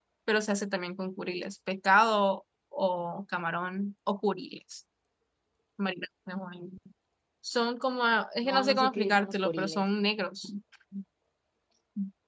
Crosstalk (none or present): present